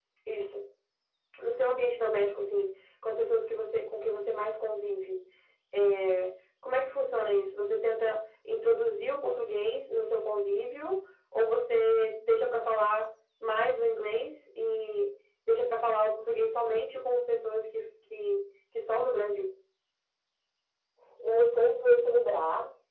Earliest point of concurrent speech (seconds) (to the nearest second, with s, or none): none